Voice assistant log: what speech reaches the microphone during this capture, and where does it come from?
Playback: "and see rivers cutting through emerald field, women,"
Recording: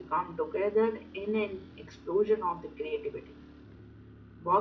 user only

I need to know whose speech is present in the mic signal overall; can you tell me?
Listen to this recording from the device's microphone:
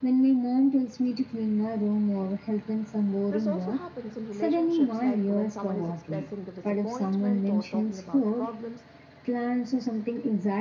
both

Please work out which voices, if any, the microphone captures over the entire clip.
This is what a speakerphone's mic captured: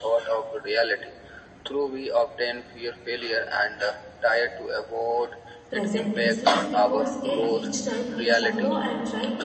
both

